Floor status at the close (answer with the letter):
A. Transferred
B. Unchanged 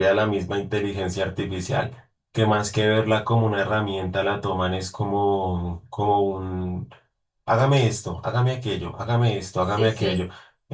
B